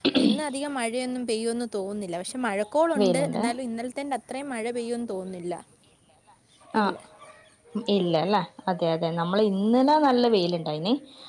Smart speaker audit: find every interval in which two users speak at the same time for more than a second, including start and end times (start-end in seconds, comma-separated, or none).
none